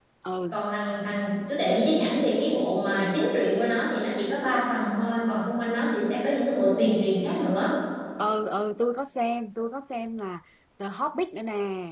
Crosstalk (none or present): none